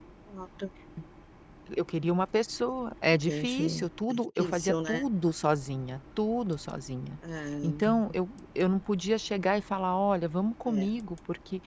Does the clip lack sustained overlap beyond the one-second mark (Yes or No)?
No